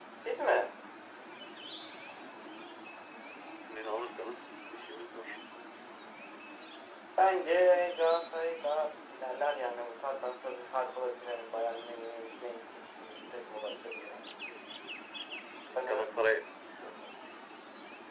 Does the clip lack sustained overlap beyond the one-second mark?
Yes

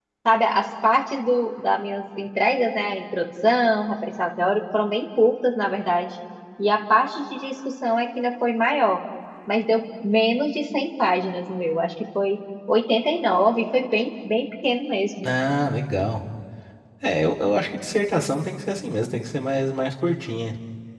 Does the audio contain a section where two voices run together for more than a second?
No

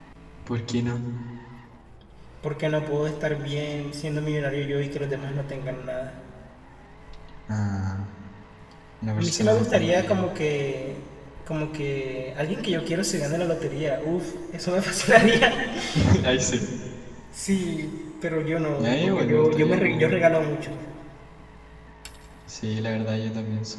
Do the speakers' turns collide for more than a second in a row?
Yes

